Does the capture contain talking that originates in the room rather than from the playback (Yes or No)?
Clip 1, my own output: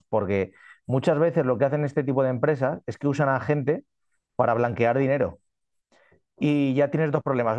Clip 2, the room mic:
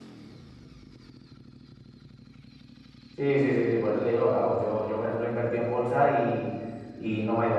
Yes